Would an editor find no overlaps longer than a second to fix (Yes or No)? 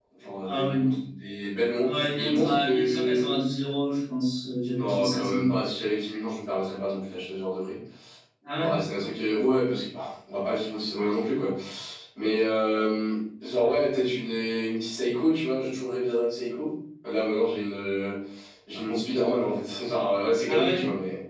No